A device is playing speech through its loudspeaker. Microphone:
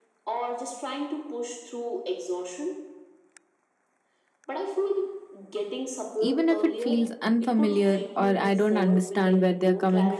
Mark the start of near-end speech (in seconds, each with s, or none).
6.2 s